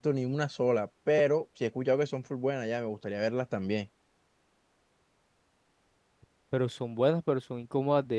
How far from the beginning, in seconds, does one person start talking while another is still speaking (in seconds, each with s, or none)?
none